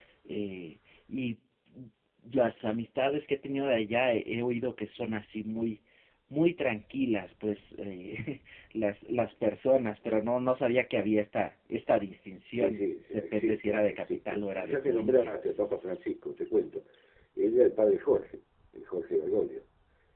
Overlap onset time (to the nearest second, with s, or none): 13 s